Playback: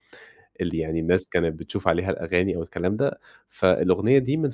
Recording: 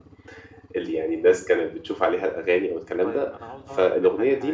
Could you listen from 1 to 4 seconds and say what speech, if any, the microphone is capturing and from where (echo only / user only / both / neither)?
both